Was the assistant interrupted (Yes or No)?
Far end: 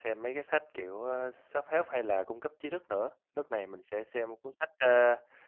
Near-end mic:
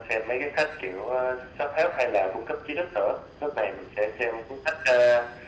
No